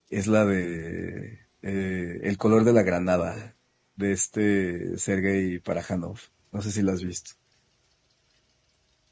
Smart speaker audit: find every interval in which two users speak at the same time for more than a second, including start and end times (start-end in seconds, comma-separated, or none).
none